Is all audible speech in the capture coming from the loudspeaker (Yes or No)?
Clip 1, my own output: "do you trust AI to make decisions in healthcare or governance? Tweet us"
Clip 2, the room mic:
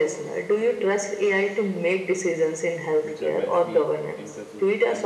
No